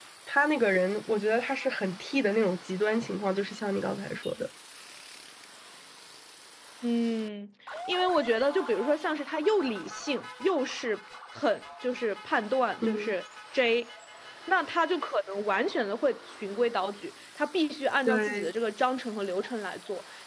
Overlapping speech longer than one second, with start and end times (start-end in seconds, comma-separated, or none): none